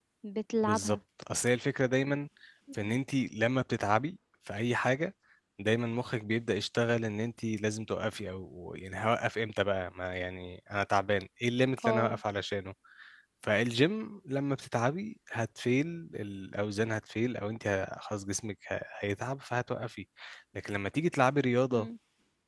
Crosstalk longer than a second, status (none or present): none